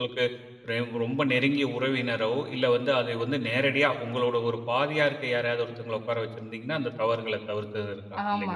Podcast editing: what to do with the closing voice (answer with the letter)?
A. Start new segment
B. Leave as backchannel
A